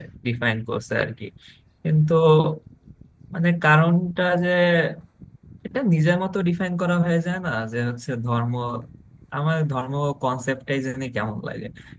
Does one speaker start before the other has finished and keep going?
No

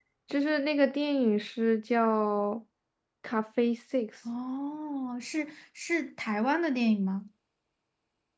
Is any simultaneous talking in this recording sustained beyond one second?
No

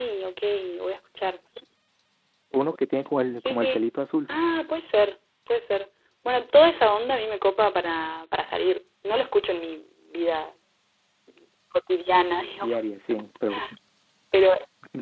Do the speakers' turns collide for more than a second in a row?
No

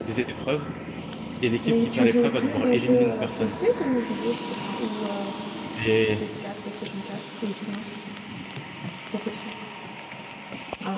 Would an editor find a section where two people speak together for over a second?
Yes, from 1.6 s

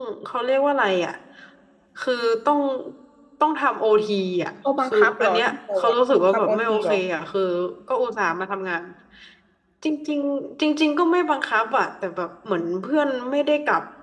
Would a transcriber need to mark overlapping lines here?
Yes, from 4.6 s

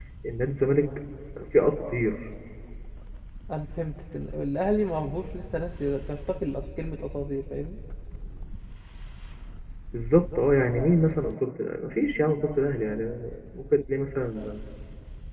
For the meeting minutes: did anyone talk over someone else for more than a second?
No

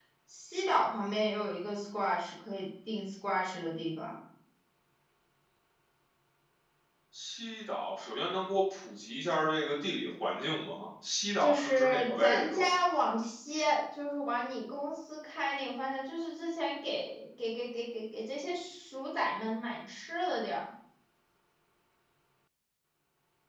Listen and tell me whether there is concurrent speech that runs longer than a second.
Yes, from 11.4 s

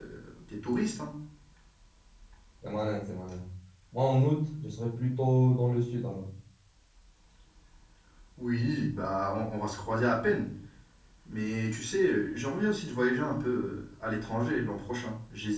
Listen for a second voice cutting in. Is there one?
No

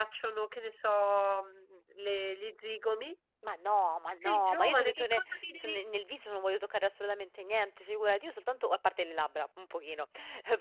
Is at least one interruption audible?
Yes, from 4.2 s

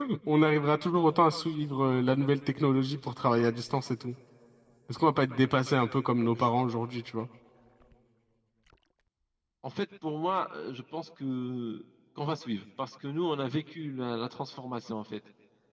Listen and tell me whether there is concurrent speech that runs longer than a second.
No

